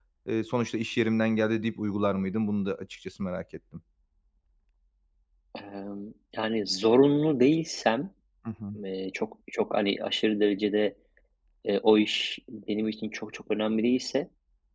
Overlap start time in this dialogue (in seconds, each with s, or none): none